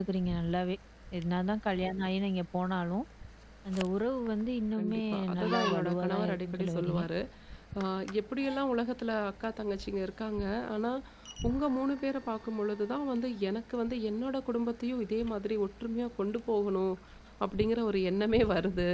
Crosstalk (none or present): present